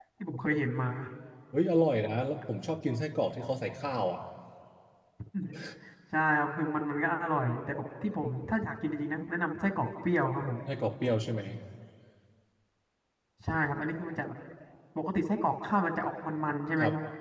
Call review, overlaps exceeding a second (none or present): none